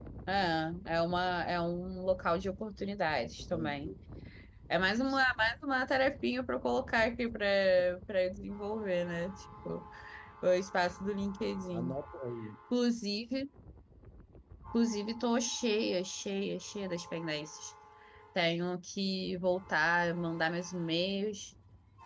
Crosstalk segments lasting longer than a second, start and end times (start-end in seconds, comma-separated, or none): none